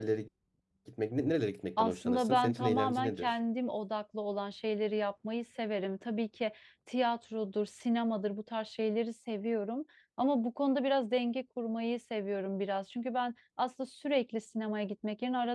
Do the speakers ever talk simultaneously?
Yes, from 1.8 s

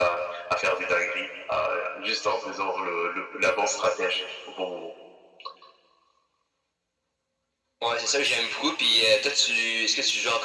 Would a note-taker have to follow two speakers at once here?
No

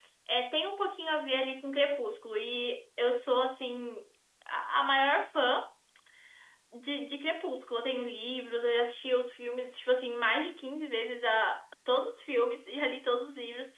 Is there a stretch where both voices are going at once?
No

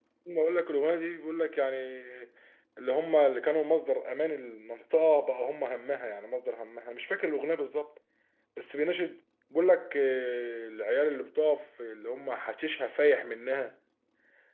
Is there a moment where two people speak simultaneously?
No

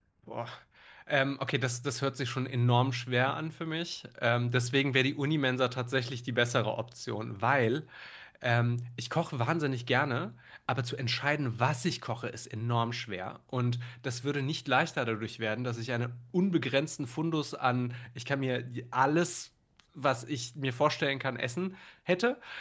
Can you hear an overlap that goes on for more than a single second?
No

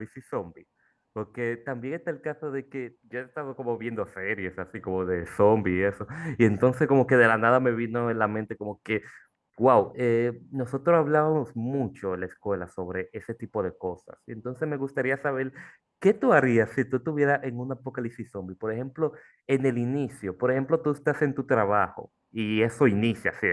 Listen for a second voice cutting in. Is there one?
No

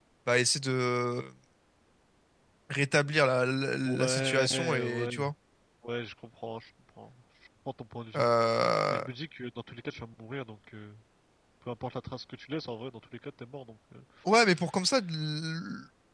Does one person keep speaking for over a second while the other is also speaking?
Yes, from 3.9 s

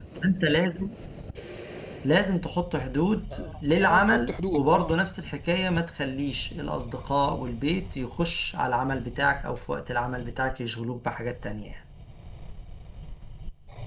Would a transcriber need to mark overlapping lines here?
Yes, from 3.3 s

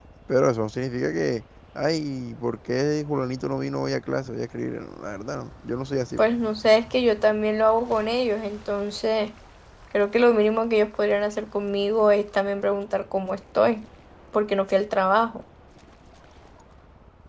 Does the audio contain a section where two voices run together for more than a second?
No

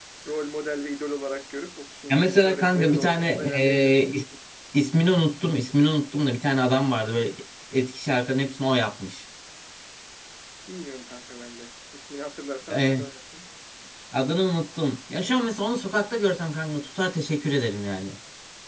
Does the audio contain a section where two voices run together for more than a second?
Yes, from 2.1 s

